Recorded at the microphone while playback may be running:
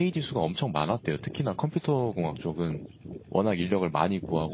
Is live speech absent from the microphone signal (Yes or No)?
No